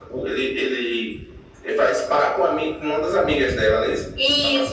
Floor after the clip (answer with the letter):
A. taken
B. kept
A